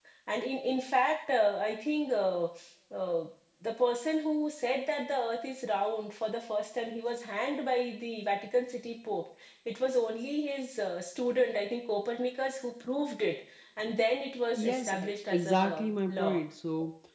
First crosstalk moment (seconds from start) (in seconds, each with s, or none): 14.5 s